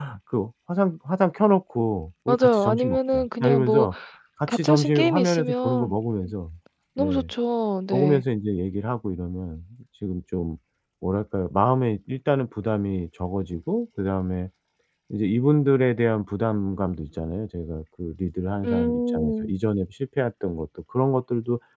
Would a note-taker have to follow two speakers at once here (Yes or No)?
Yes